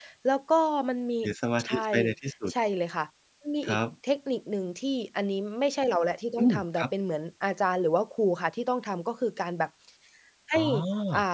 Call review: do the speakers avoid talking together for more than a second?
Yes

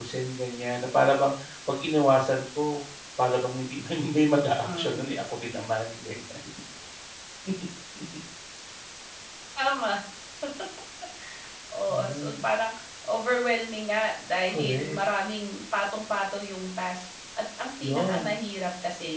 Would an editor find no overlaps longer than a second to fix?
Yes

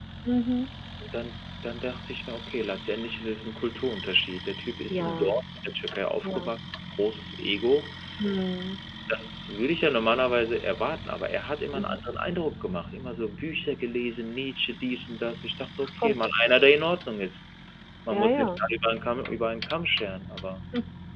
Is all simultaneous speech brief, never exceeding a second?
Yes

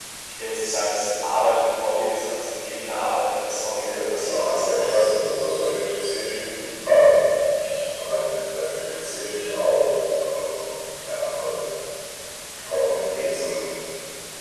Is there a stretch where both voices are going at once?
Yes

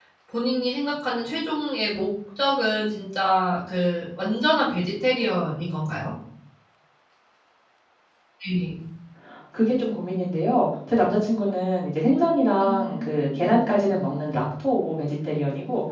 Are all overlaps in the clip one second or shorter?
Yes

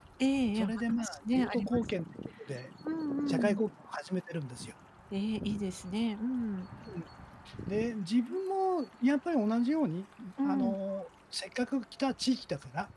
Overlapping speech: Yes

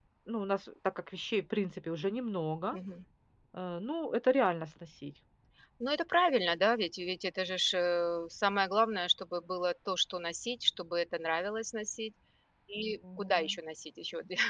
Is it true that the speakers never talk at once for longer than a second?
Yes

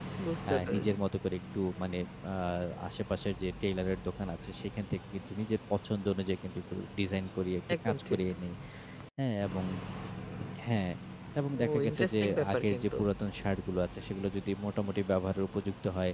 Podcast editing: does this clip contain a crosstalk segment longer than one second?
Yes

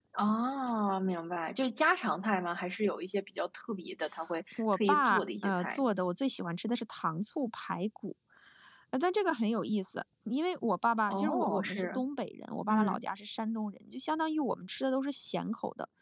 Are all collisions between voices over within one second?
No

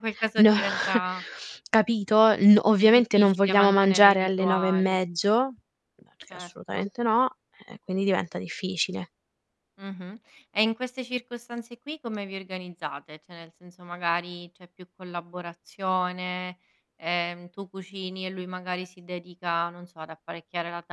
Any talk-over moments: Yes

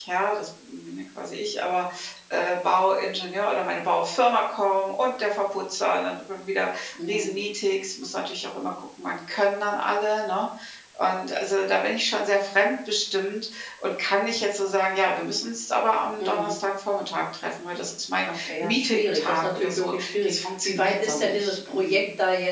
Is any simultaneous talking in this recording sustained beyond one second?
Yes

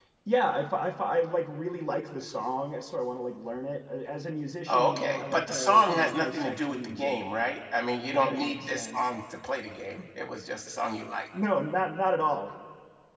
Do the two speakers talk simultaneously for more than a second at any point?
Yes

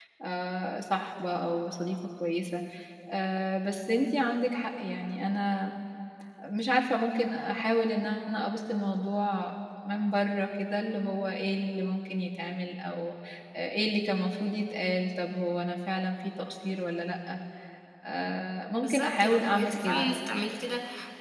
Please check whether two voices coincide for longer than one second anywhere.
Yes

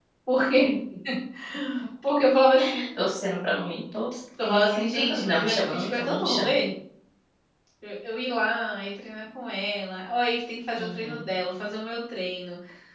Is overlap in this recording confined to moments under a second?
No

